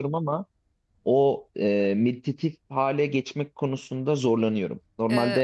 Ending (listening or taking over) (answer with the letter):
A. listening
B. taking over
B